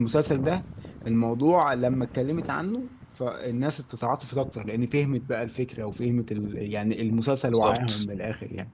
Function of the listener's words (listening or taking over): listening